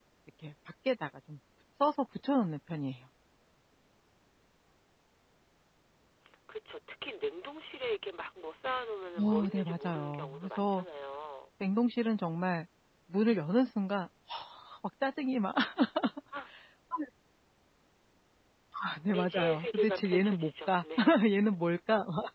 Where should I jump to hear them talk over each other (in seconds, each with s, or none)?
9.2 s